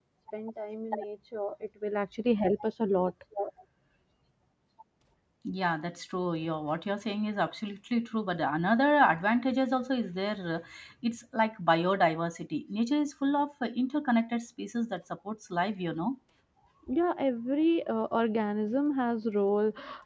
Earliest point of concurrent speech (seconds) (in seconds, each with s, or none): none